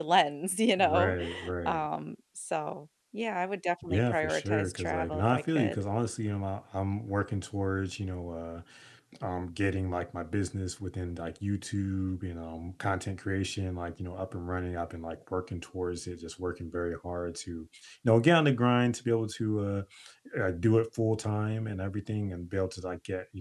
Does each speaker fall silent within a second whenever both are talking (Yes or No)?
No